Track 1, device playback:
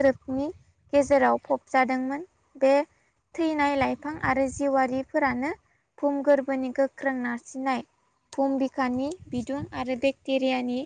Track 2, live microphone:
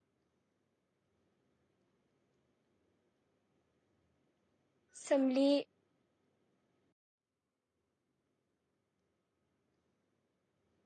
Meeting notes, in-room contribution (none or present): present